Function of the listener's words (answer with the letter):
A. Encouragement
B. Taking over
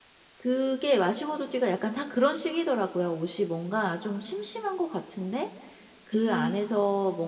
A